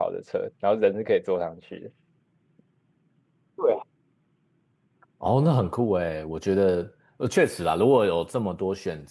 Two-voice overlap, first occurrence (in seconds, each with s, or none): none